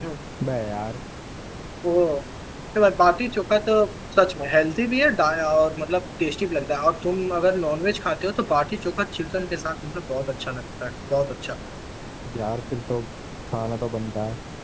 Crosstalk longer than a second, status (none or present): none